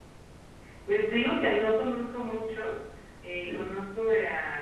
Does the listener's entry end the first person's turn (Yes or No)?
No